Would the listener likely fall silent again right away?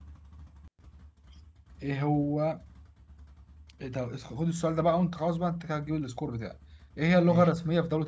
Yes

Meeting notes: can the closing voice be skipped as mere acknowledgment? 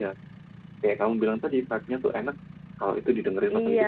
No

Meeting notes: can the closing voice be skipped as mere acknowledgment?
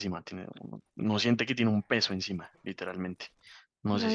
No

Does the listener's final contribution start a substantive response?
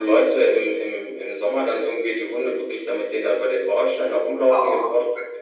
No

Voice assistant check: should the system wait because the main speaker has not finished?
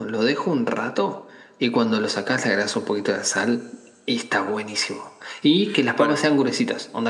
Yes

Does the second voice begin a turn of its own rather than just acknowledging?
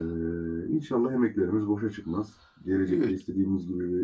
No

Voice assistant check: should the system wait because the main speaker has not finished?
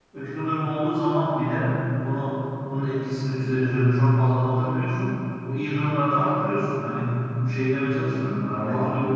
Yes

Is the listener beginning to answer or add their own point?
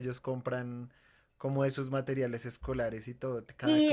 Yes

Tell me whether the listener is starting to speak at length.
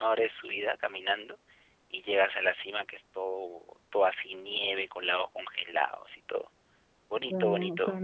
Yes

